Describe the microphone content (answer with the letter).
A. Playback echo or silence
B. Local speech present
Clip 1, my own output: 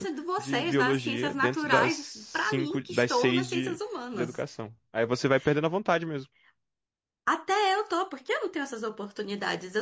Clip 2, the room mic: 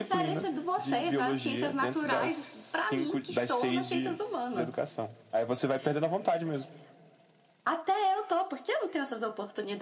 A